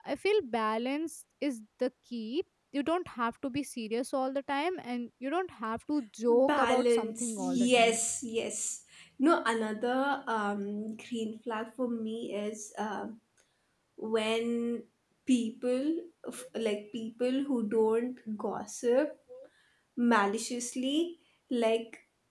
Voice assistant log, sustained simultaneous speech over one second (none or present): present